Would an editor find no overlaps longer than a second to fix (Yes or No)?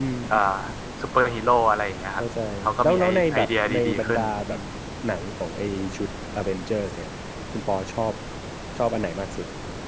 No